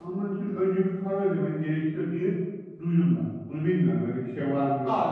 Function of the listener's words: taking over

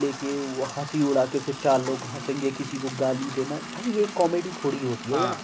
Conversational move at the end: listening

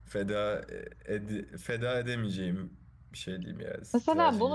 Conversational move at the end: taking over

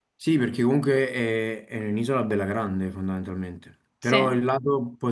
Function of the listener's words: listening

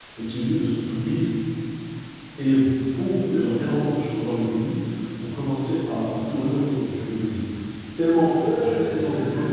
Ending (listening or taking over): taking over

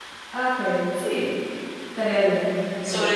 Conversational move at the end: taking over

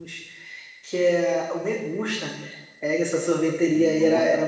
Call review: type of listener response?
listening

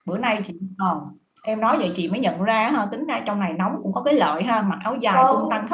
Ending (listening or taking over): taking over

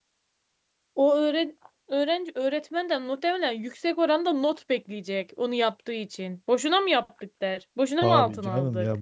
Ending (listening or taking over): taking over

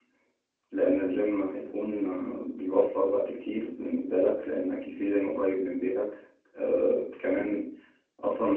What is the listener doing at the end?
listening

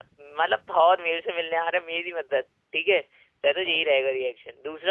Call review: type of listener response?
listening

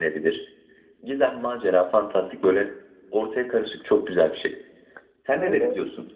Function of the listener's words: taking over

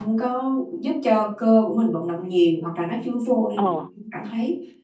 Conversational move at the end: listening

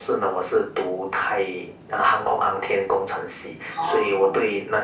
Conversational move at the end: listening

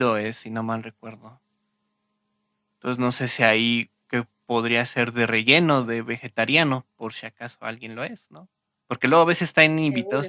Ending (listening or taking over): listening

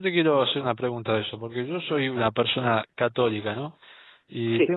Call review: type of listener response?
listening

